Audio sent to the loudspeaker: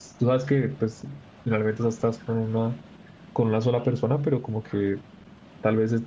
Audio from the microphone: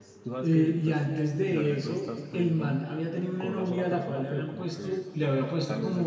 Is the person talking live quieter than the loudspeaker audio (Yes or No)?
No